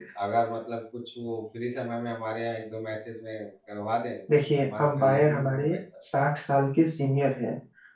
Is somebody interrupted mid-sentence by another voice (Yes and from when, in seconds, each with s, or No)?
Yes, from 4.6 s